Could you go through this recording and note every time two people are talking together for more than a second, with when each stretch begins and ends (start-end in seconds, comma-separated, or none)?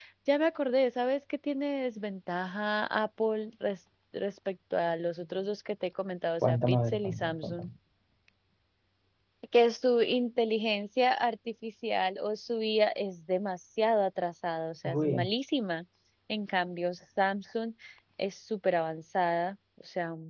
6.4-7.7